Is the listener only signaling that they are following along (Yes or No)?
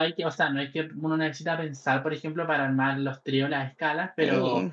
Yes